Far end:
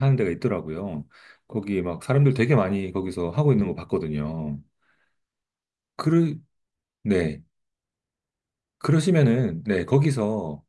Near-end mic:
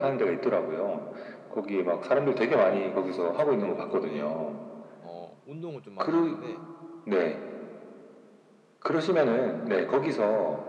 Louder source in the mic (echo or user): echo